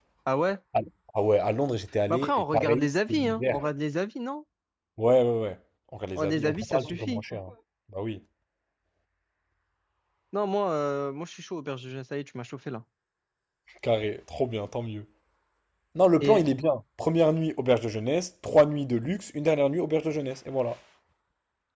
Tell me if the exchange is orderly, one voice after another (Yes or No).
No